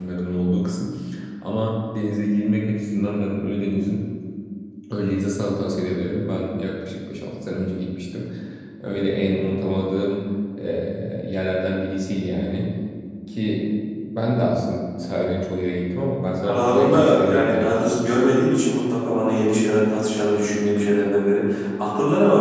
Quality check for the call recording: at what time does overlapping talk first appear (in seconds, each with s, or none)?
16.4 s